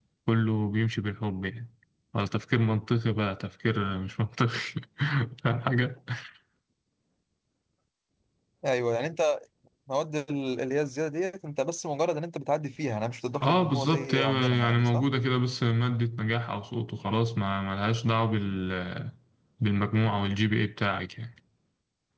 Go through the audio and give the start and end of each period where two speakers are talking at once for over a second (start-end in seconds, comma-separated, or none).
13.4-15.1